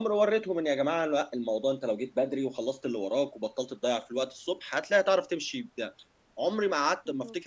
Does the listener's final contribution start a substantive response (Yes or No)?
No